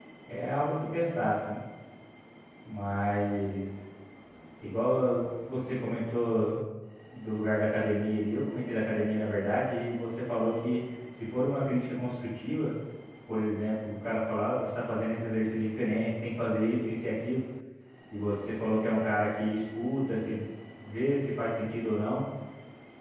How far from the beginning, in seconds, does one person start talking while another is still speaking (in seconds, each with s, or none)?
none